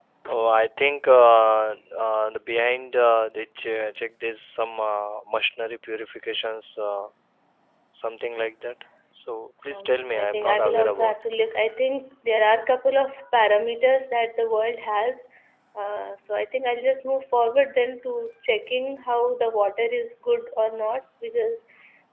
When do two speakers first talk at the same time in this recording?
10 s

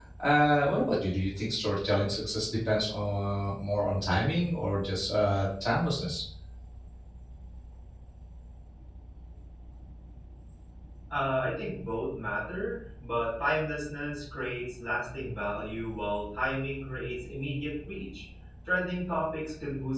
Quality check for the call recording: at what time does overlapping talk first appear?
none

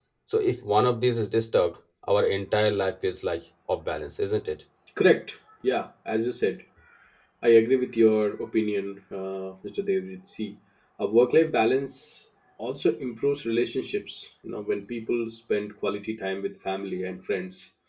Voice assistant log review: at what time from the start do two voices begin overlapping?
none

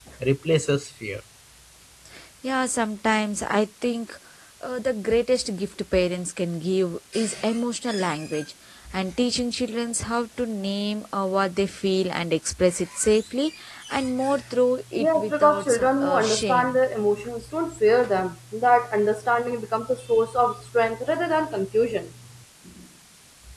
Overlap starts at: 15 s

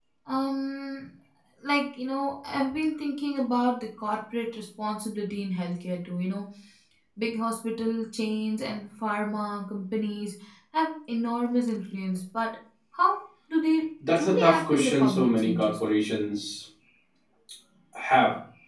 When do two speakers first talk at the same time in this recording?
14 s

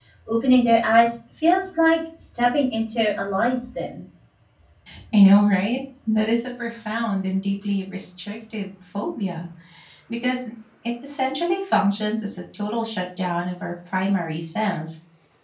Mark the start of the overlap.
none

